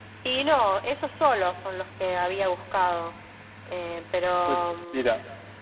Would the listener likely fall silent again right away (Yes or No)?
No